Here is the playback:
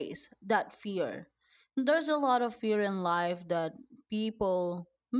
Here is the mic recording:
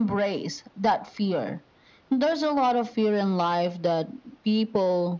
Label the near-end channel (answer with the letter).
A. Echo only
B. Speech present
A